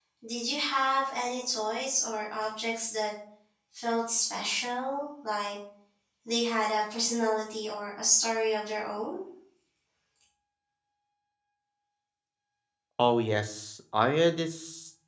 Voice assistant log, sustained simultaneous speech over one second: none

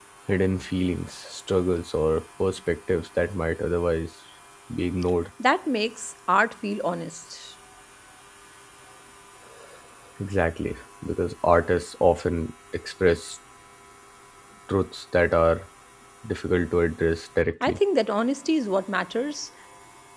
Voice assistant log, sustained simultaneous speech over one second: none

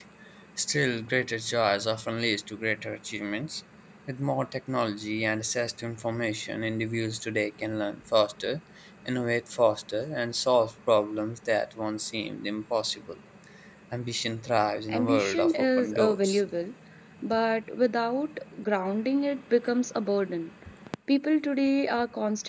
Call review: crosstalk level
present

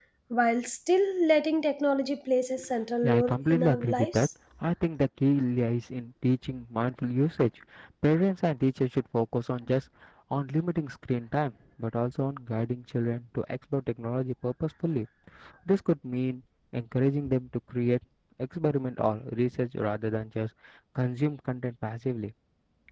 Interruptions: present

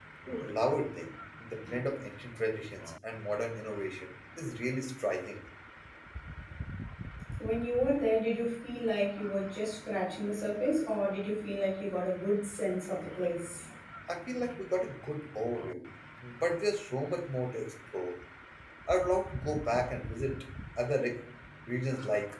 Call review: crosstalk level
none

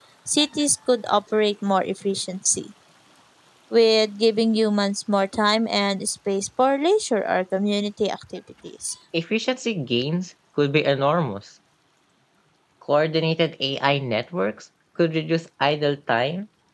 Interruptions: none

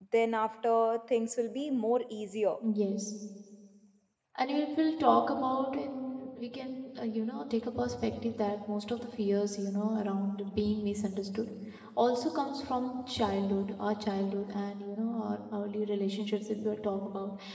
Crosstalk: none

